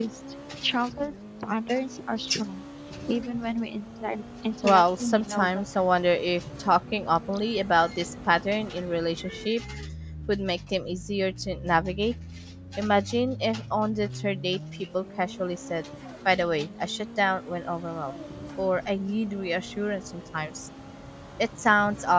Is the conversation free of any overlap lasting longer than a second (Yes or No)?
No